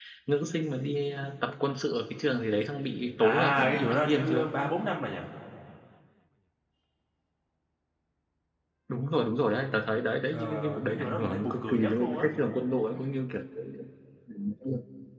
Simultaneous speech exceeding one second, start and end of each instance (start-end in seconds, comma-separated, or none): 3.2-4.5, 10.3-12.2